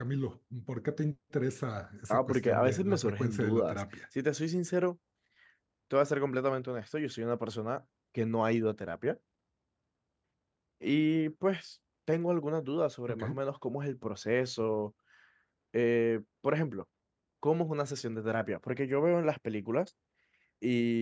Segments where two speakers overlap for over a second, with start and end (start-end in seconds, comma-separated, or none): 2.1-3.8